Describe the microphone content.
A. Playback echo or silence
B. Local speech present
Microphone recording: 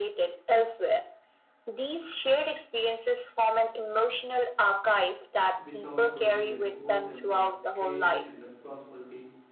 B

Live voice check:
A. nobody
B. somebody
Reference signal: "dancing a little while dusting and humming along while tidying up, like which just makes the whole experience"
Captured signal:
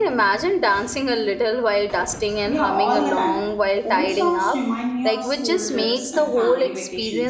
B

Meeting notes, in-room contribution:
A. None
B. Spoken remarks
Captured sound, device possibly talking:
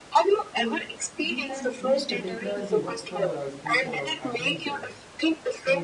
B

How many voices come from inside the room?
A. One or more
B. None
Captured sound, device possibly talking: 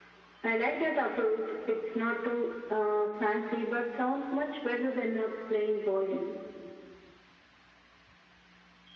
B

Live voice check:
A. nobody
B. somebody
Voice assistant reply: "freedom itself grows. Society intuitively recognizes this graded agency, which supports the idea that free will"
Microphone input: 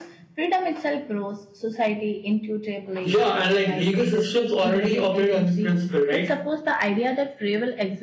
B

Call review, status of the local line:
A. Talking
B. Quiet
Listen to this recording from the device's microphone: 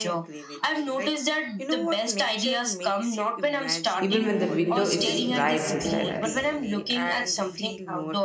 A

